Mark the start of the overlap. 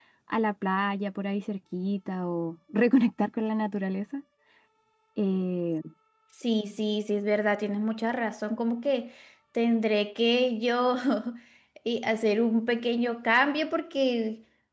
none

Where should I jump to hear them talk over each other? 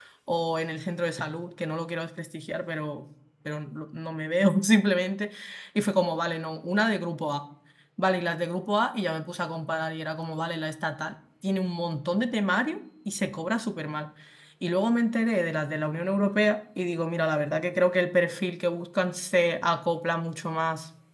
none

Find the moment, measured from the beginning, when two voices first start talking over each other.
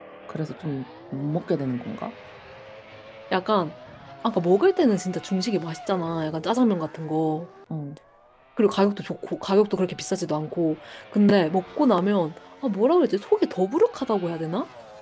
none

